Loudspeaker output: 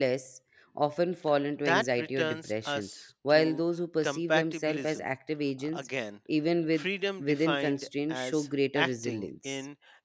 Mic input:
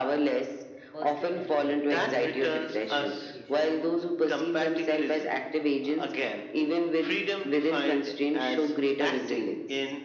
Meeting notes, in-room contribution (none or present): present